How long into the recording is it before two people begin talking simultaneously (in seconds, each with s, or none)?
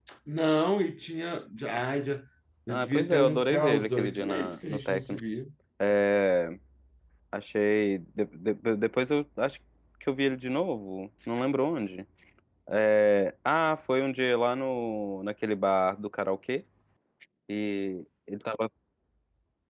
2.7 s